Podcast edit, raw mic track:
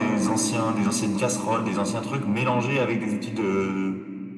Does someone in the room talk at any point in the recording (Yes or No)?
No